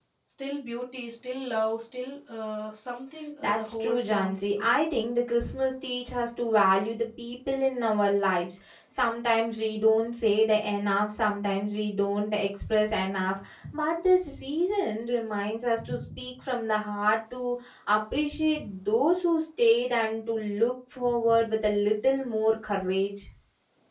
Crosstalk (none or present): present